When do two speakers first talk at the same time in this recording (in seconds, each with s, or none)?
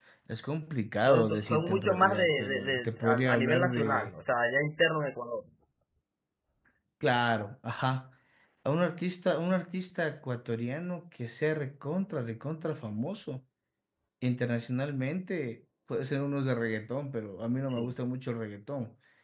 1.0 s